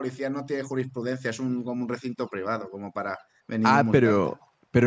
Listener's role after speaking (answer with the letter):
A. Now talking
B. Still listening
A